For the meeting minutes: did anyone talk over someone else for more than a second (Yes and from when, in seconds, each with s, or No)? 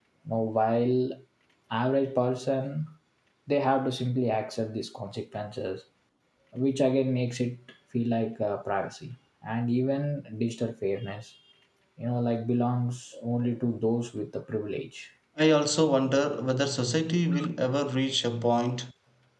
No